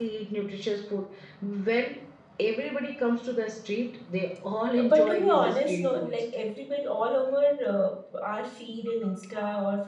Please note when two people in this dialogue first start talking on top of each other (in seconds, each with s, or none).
4.8 s